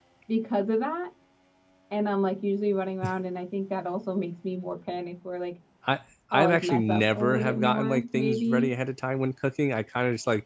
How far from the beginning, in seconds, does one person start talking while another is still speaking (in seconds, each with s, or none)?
6.3 s